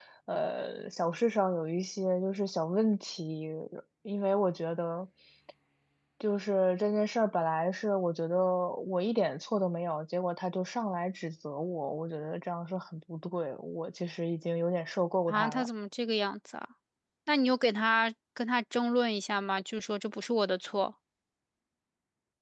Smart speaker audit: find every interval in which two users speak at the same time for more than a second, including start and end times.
none

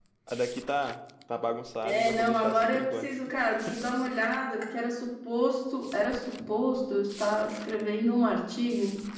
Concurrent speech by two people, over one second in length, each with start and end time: 1.9-3.1

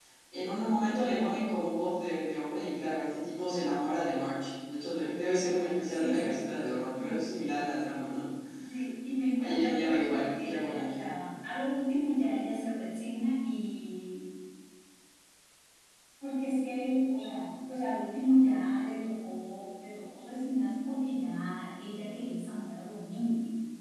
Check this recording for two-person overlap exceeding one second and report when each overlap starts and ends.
5.9-7.2, 9.4-11.1

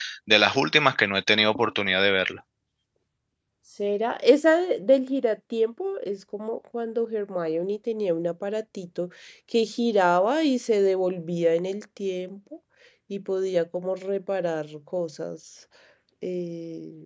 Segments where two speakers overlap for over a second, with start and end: none

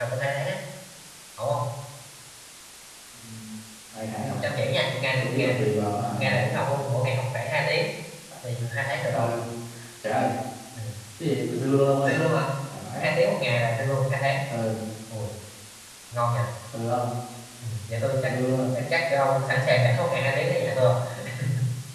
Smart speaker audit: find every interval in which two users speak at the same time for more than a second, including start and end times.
none

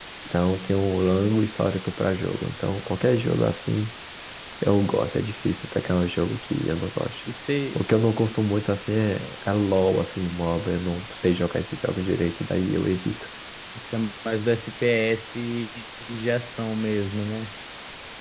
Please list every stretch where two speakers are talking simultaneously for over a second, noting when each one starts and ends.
none

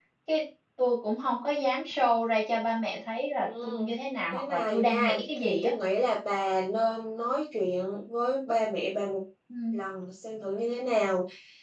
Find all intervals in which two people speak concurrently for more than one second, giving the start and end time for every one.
4.3-5.7

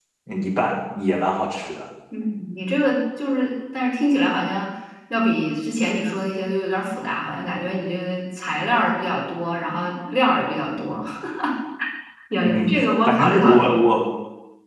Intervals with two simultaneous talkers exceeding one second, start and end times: 12.4-13.8

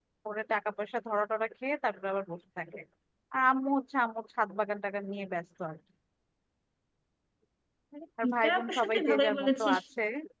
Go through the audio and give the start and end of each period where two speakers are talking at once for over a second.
8.2-9.8

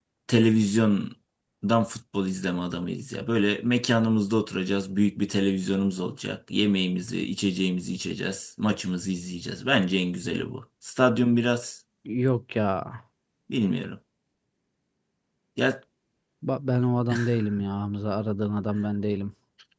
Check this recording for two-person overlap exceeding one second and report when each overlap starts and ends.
none

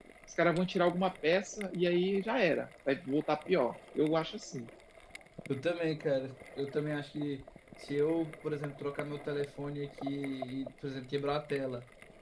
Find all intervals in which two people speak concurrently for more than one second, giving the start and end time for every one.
none

